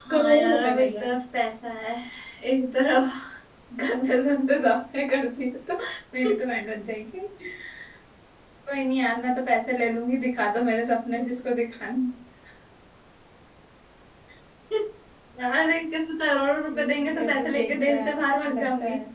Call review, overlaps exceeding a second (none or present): present